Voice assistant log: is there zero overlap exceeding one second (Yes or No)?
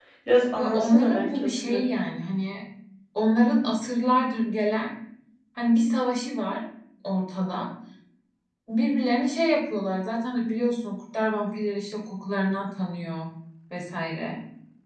No